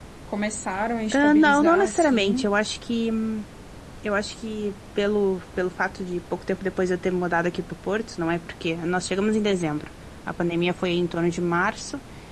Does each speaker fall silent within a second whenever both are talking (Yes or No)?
No